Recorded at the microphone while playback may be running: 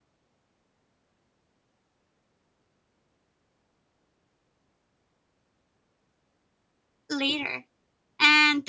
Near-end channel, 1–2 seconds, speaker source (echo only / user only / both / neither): neither